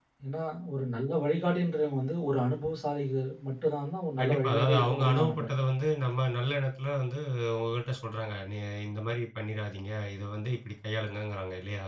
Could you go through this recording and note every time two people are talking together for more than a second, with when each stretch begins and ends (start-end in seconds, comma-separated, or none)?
4.2-5.5